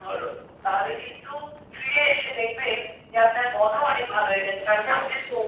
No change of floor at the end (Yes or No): Yes